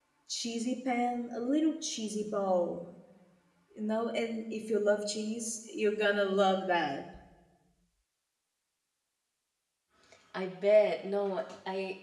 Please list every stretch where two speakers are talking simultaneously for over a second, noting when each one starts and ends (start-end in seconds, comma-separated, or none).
none